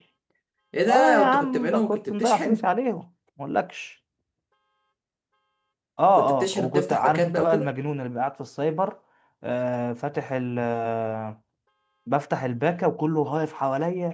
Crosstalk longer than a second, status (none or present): present